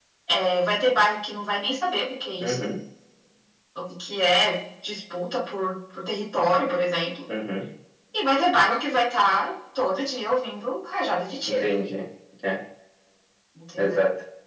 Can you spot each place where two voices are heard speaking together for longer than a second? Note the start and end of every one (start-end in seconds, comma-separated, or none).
none